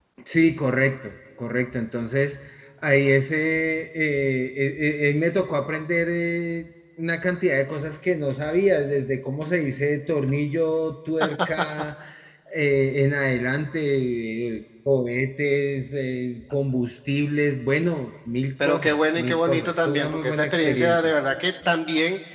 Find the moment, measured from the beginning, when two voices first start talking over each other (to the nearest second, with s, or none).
19 s